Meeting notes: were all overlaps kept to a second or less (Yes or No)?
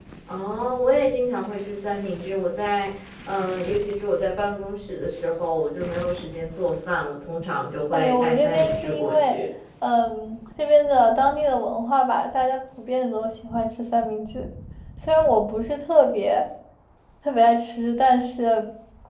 No